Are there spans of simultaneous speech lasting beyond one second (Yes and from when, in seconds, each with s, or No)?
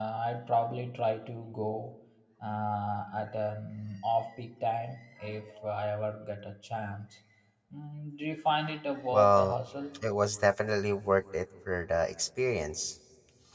No